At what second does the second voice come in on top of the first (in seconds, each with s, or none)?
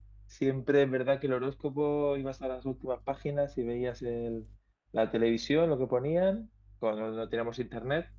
none